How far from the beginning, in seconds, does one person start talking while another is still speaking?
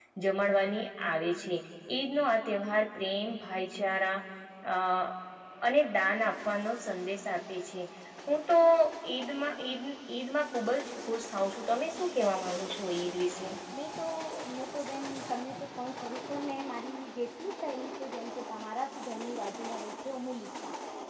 none

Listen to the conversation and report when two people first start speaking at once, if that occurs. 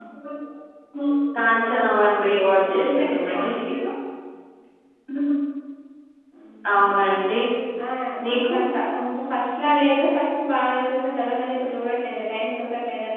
2.2 s

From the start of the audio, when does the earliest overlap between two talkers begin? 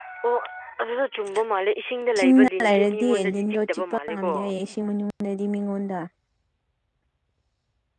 2.2 s

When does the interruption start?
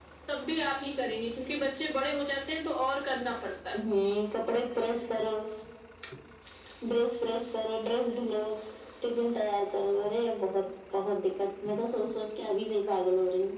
none

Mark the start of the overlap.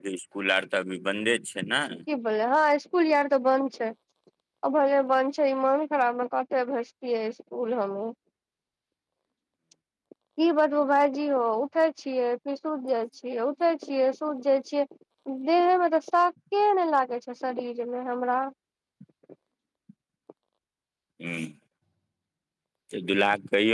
none

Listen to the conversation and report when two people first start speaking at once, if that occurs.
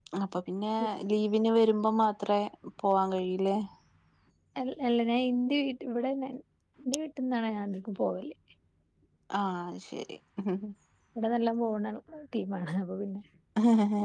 none

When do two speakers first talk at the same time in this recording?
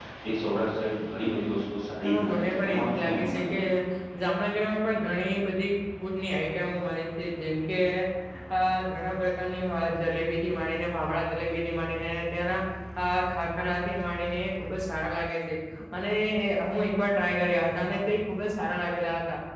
2.0 s

